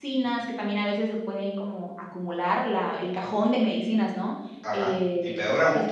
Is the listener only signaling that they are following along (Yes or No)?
No